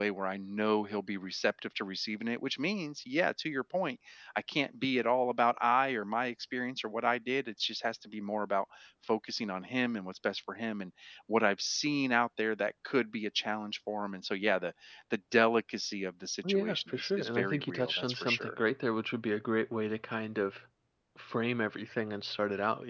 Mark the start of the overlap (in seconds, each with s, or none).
16.4 s